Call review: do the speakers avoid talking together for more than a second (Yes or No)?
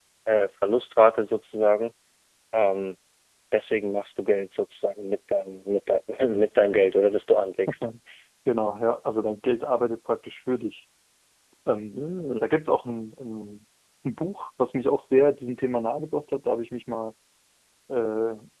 Yes